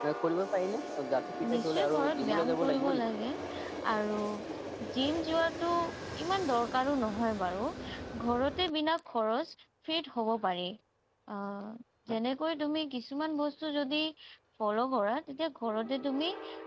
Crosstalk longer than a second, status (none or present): present